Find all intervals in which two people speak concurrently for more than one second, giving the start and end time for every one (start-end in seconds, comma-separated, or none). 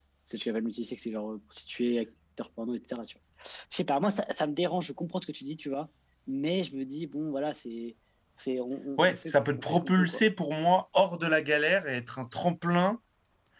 9.0-10.2